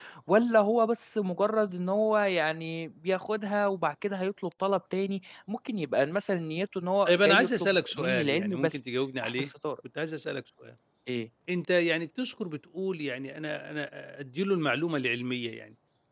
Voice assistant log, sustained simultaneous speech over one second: present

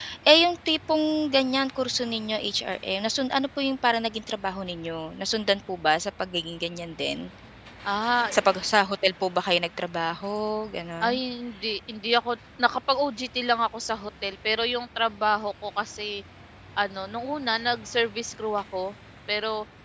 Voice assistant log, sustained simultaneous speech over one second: none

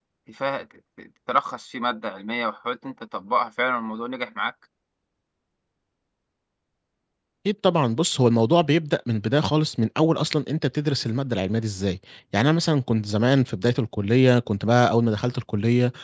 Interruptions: none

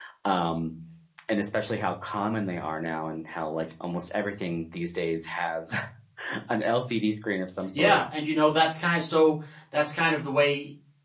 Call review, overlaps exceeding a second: none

